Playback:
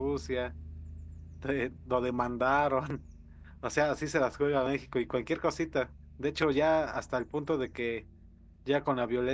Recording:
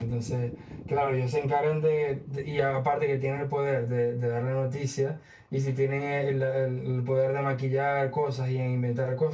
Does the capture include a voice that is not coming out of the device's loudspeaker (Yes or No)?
Yes